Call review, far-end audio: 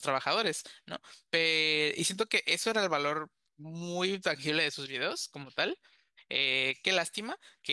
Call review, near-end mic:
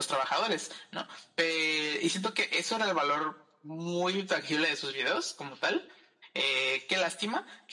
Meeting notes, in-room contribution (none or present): none